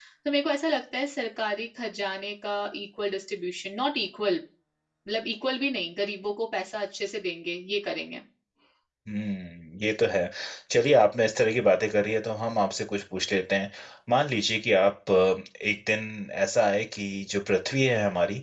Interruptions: none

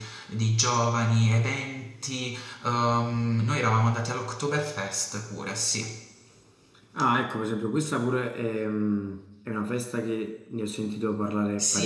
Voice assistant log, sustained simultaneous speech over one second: none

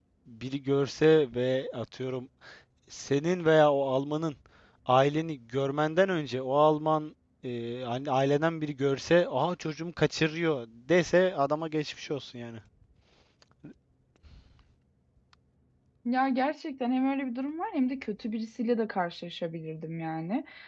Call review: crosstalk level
none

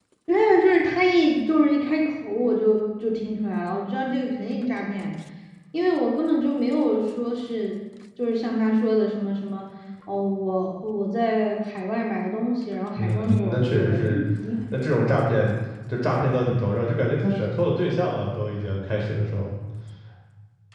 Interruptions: present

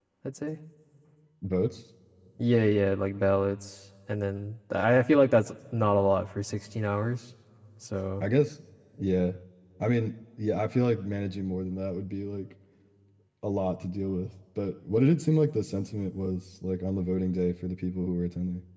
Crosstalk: none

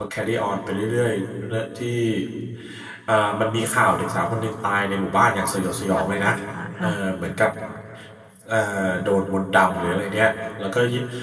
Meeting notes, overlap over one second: none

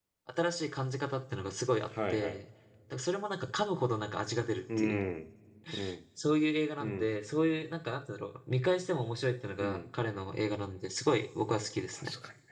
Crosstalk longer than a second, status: none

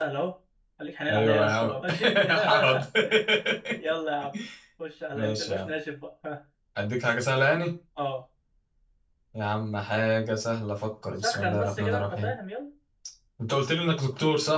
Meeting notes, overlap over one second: present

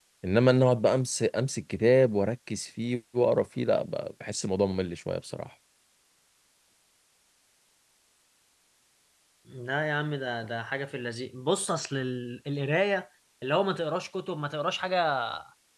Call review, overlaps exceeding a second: none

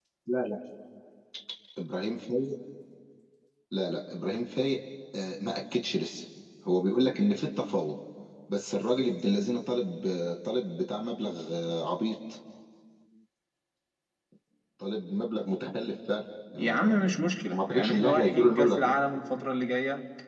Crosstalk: present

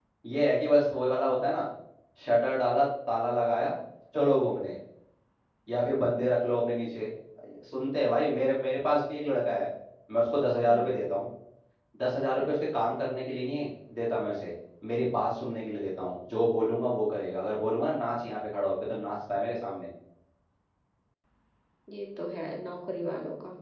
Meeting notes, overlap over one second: none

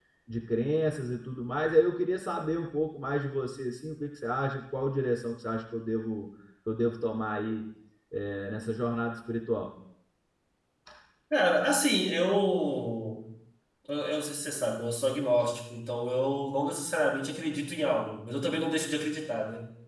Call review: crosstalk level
none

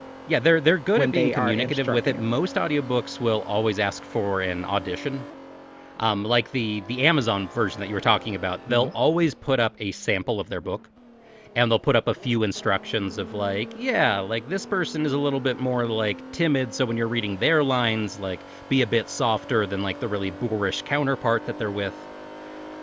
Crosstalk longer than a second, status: present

